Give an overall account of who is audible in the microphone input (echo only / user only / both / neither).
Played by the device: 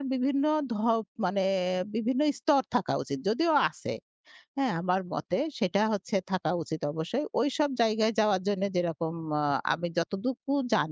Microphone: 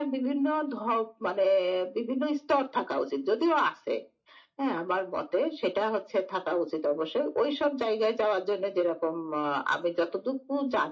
echo only